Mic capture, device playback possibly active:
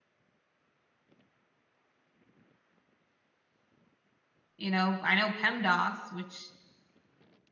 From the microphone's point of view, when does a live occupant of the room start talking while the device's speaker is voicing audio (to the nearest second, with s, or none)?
5 s